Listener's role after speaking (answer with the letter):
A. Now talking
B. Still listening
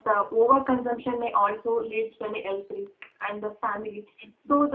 B